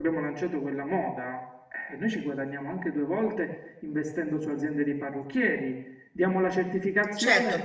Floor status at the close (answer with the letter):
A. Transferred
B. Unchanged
A